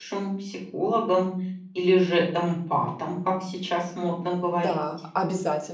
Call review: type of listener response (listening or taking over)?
taking over